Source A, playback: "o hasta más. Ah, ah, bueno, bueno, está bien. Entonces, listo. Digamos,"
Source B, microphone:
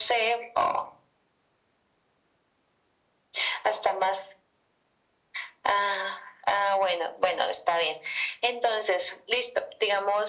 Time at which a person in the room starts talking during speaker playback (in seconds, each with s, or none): none